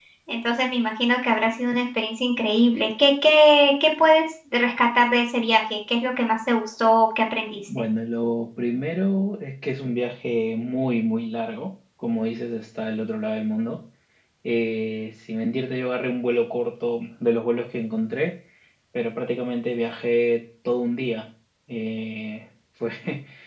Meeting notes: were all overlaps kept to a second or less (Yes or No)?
Yes